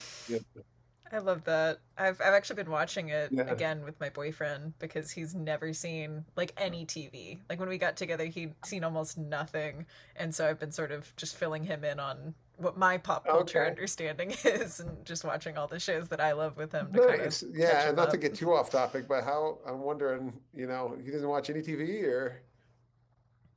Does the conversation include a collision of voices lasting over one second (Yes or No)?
Yes